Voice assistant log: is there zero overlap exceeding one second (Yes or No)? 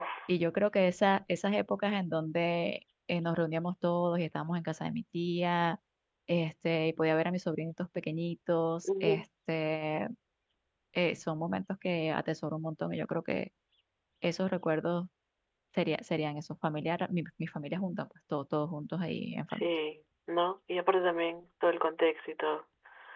Yes